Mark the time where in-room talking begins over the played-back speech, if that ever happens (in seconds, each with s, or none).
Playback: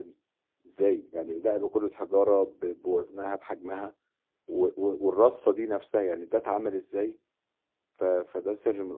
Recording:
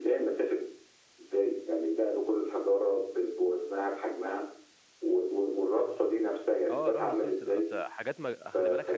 6.7 s